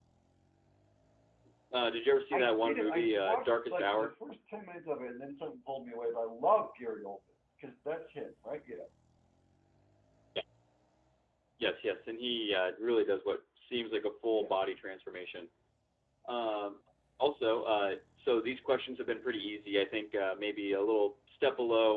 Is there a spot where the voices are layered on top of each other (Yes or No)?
Yes